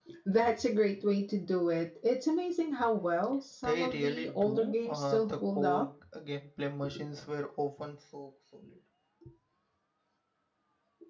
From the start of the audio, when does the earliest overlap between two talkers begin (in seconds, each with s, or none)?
3.6 s